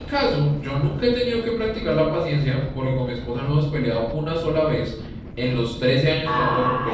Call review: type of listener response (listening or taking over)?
taking over